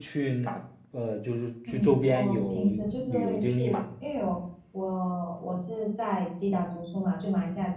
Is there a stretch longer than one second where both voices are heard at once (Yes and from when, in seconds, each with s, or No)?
Yes, from 1.7 s